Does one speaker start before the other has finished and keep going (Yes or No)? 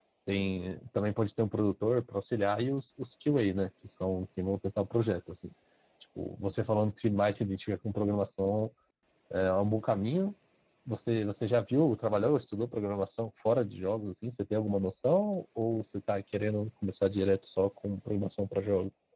No